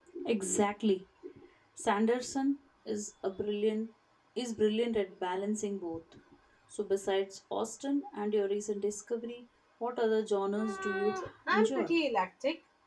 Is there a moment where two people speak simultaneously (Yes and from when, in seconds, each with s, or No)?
Yes, from 10.5 s